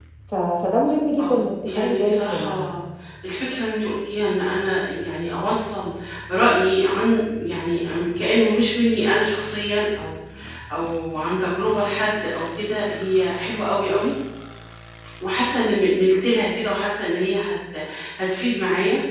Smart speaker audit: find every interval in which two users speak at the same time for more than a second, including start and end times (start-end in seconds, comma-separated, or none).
1.2-2.6